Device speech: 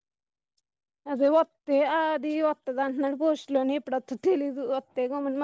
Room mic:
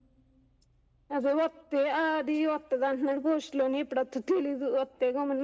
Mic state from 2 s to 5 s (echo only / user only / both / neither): echo only